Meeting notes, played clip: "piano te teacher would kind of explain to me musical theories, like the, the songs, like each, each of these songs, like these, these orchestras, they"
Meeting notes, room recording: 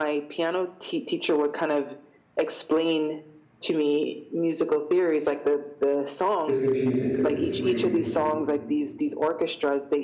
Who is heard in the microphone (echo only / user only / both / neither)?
both